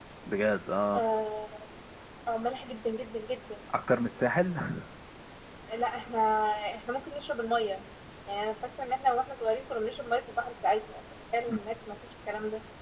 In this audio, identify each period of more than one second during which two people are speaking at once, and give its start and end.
none

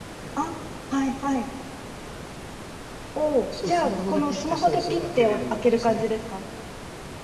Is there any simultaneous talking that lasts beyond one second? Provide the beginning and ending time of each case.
3.6-6.0

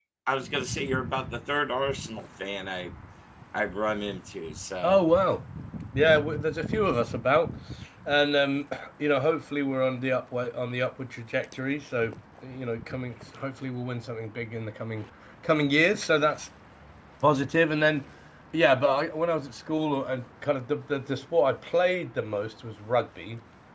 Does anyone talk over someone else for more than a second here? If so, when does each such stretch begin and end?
none

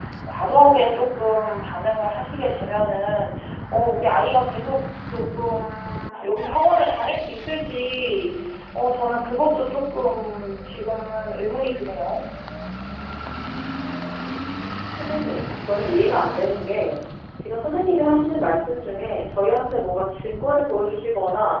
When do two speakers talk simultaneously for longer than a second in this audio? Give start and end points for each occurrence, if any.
none

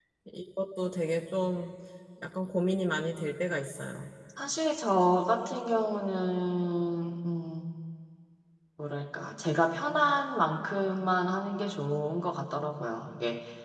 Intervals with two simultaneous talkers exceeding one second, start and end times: none

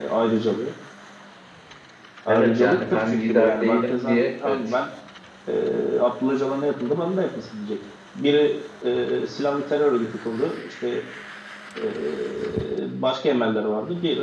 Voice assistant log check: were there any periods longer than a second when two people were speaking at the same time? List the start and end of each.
2.3-4.6

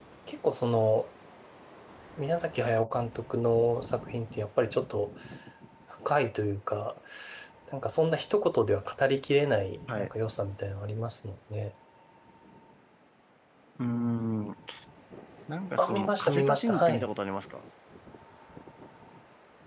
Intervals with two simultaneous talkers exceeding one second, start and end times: 15.8-17.1

